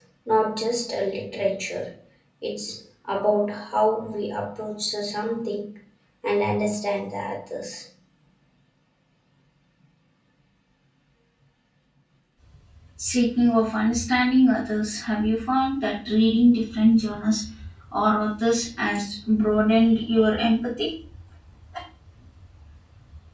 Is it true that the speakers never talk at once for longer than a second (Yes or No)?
Yes